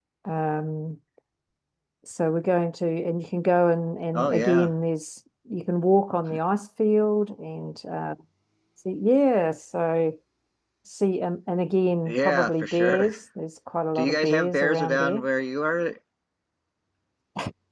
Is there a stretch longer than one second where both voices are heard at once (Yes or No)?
Yes